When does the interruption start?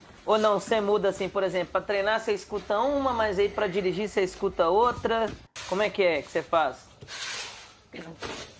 none

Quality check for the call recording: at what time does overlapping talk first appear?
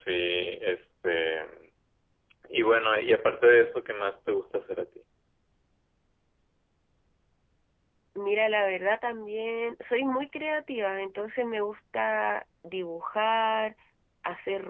none

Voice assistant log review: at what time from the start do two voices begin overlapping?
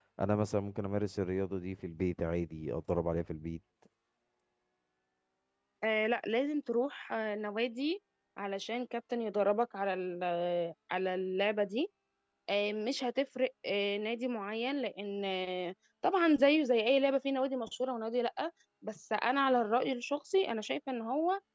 none

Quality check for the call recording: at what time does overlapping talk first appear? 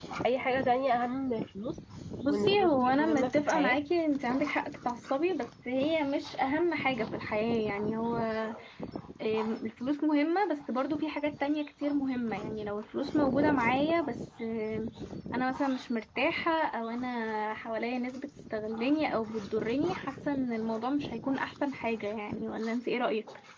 2 s

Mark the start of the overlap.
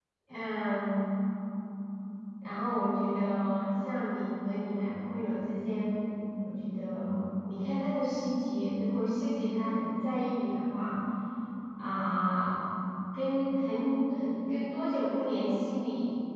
none

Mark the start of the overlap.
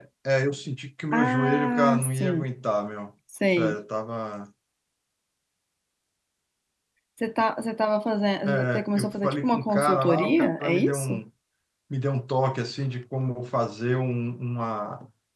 1 s

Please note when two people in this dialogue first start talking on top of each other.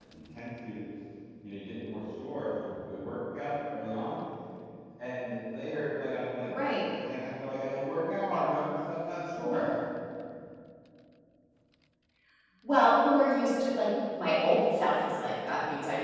none

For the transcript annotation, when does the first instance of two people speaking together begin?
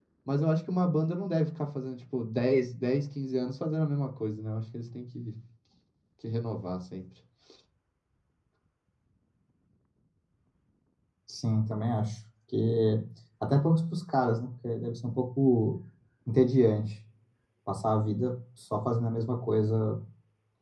none

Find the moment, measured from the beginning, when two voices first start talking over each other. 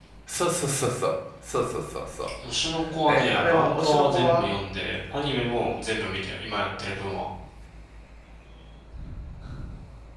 3 s

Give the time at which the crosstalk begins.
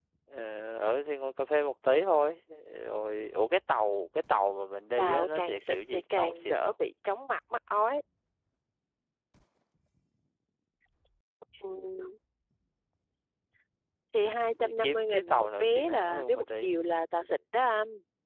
5 s

